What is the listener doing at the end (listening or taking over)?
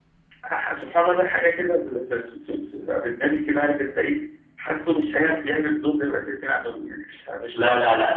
taking over